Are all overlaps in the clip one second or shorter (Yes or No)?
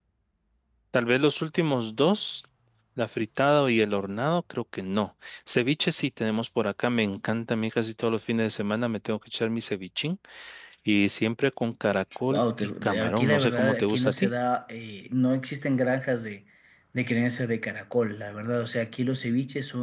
No